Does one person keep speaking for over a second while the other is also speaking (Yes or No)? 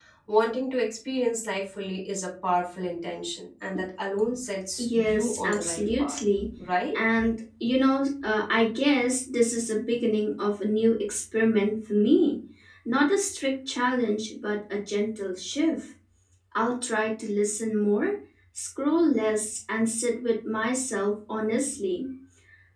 Yes